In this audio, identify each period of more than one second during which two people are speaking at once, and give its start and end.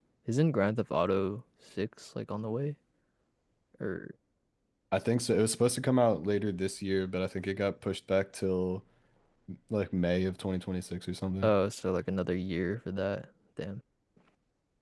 none

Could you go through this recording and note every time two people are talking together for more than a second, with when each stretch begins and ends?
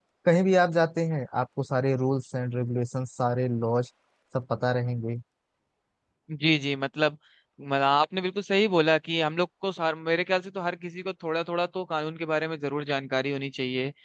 none

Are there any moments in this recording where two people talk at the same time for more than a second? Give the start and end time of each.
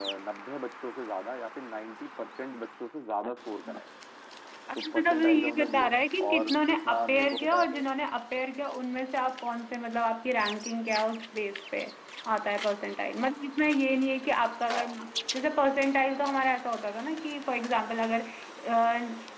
4.8-7.8

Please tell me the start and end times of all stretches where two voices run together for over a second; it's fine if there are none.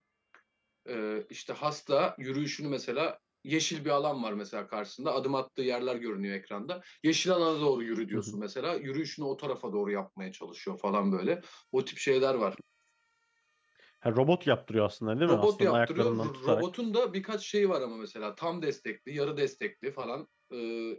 15.3-16.6

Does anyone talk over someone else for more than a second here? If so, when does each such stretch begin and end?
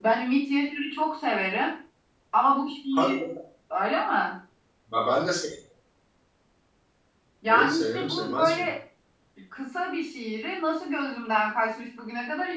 7.5-8.7

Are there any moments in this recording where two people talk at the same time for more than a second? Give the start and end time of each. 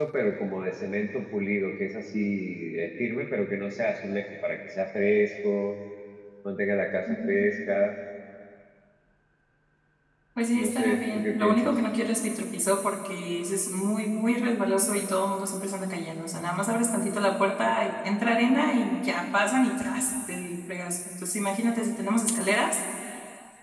10.6-11.8

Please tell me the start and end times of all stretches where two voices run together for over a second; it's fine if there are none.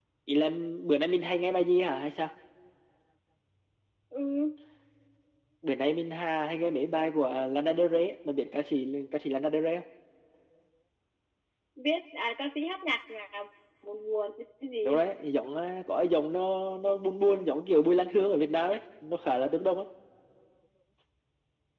none

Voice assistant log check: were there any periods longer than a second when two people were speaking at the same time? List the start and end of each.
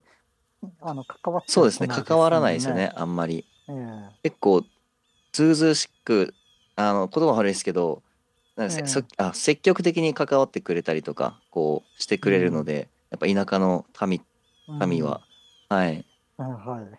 1.6-2.8

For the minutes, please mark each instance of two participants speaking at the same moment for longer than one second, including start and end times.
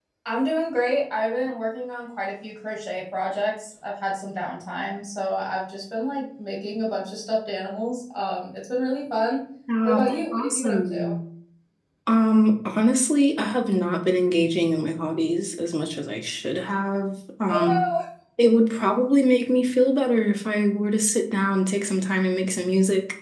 9.8-11.1

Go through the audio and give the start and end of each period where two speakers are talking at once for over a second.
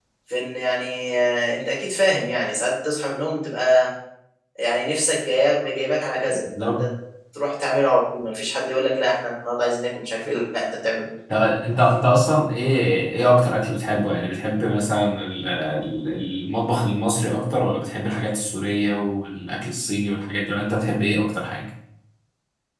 none

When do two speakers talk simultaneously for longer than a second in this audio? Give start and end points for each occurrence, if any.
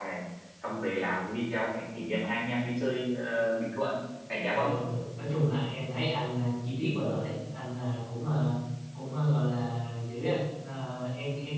none

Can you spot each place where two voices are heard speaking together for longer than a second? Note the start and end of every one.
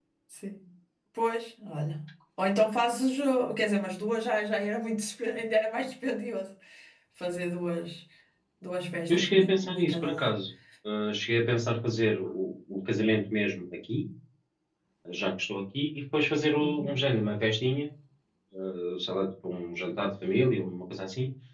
9.1-10.3

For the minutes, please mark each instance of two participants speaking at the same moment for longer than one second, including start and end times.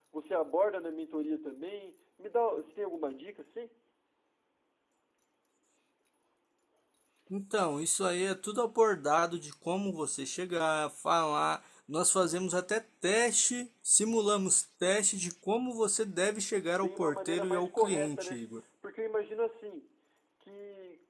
16.8-18.4

